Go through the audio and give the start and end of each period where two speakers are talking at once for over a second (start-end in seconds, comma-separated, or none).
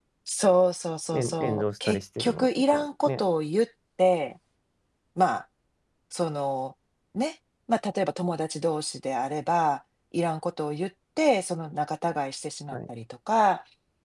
1.1-3.2